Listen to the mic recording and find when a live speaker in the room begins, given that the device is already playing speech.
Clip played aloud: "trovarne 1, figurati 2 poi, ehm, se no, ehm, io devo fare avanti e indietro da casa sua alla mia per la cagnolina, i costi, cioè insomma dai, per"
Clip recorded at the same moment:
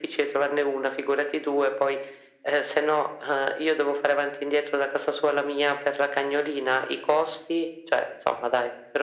none

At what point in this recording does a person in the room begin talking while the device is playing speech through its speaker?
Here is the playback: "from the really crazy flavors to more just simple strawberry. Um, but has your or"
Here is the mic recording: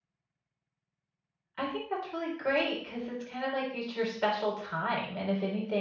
1.6 s

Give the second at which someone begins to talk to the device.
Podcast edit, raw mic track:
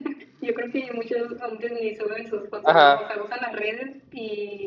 2.6 s

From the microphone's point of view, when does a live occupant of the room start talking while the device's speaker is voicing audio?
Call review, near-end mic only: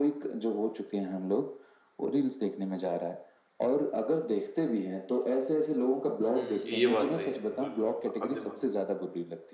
6.3 s

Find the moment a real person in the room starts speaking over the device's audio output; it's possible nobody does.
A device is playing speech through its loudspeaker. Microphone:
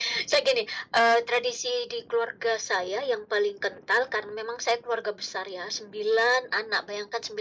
none

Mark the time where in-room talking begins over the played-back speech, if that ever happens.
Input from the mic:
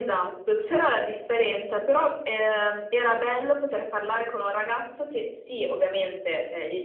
none

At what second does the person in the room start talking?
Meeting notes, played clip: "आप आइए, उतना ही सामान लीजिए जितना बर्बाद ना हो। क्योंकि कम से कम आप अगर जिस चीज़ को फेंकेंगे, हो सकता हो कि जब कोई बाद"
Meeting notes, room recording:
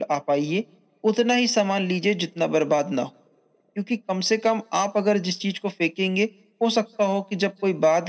none

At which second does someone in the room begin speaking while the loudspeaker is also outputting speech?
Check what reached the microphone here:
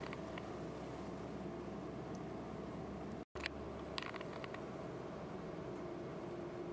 none

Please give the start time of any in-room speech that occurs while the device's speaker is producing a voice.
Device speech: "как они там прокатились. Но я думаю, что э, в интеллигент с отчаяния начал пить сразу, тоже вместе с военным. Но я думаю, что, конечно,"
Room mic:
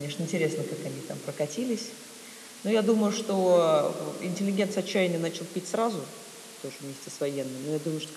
none

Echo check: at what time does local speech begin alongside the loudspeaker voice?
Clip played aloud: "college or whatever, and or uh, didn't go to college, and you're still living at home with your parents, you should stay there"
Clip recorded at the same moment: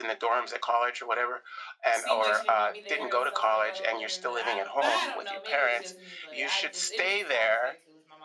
1.9 s

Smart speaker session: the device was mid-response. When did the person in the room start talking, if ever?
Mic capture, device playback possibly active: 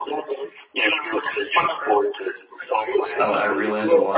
3.2 s

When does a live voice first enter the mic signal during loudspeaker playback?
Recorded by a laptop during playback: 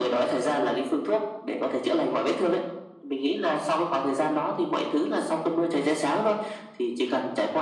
none

